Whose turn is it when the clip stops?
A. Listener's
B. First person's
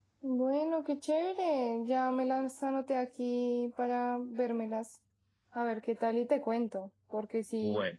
B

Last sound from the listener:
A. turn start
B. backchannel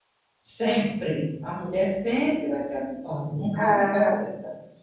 B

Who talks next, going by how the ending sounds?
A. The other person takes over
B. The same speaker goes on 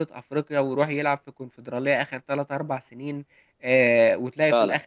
B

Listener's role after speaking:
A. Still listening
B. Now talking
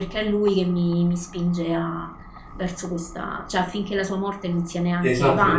B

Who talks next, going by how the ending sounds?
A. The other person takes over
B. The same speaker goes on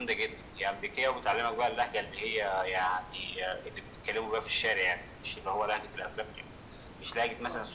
B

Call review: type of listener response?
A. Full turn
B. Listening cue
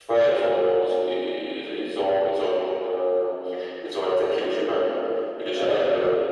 B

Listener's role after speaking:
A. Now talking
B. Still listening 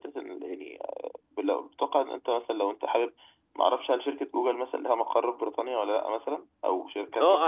A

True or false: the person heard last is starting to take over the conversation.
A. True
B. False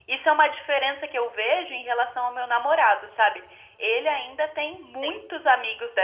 B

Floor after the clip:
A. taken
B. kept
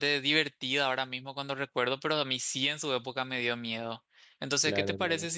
B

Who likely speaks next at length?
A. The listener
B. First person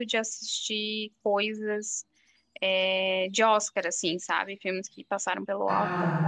A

